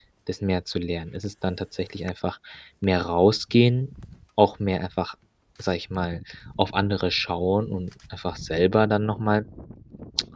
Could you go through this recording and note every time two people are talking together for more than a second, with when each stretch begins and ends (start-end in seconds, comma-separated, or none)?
none